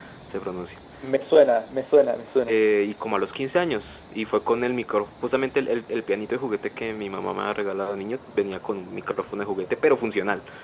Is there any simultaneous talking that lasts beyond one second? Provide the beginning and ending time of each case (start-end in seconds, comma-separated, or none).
none